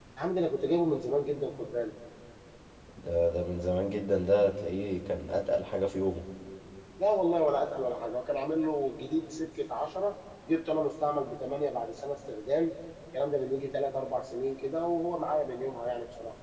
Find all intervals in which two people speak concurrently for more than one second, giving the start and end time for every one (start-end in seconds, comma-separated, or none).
none